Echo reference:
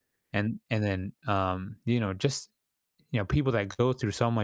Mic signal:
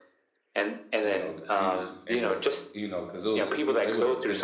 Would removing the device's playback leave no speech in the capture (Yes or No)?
No